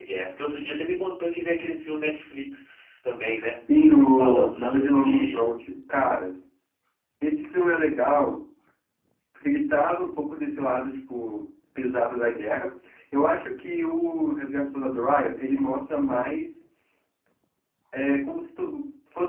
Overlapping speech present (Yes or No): Yes